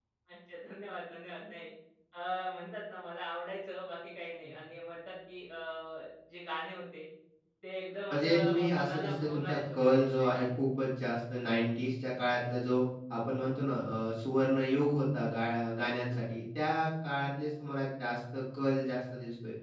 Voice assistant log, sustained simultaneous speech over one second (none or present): present